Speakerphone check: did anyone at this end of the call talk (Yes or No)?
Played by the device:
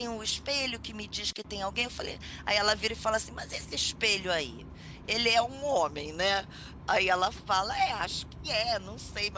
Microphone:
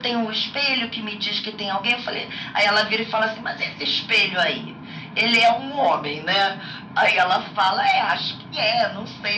No